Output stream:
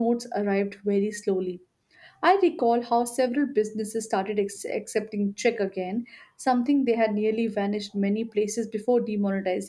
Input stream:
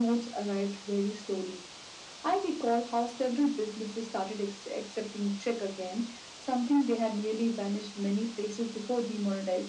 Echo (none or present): present